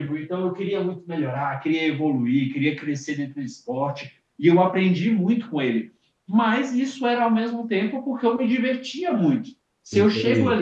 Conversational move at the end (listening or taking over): listening